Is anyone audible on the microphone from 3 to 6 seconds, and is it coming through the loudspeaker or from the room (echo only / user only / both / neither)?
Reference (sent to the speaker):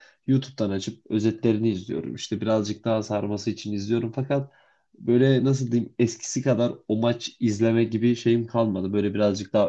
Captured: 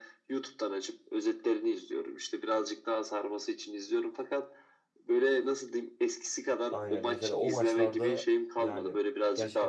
echo only